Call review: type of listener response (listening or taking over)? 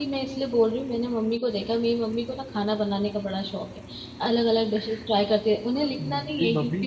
listening